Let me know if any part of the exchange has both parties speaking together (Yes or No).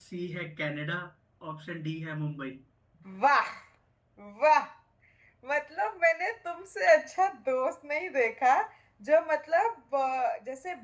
No